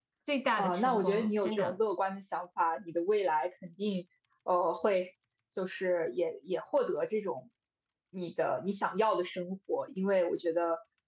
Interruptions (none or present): present